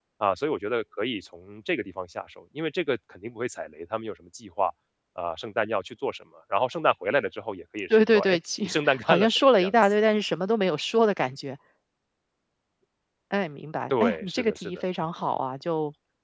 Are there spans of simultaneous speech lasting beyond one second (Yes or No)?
Yes